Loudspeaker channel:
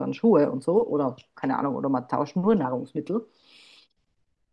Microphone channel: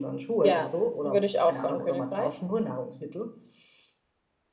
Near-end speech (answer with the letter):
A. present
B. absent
A